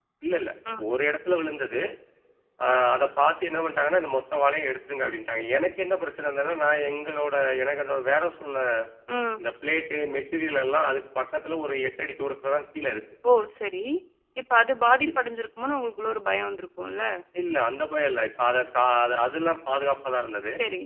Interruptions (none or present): none